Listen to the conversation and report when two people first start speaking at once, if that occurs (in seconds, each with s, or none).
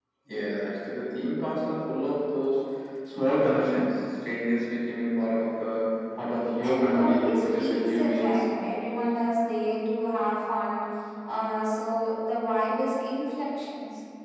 6.6 s